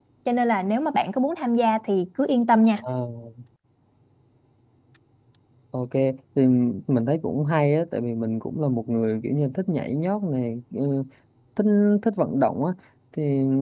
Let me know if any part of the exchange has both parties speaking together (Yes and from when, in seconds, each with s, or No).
No